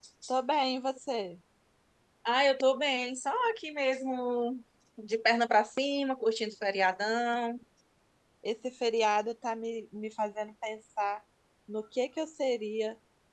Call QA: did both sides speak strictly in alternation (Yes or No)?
Yes